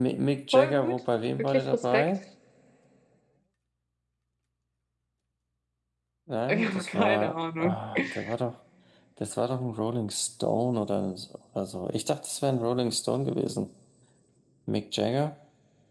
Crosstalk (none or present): present